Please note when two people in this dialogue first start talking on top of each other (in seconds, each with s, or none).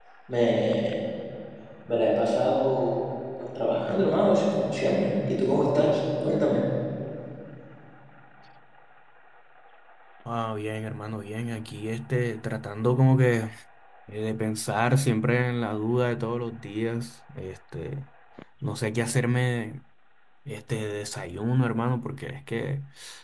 none